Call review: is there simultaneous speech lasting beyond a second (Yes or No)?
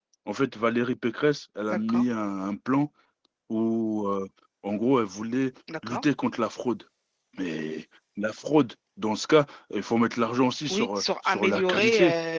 Yes